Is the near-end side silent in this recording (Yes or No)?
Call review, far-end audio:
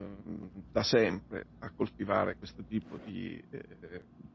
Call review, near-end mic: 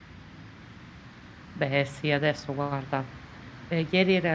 No